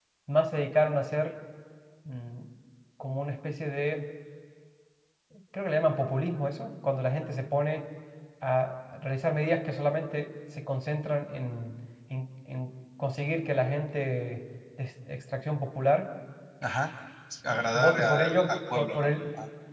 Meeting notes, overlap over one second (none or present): present